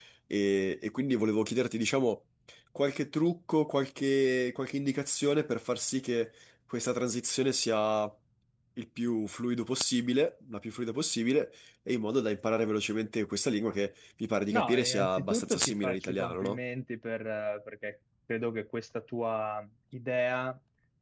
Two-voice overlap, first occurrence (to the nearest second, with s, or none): 15 s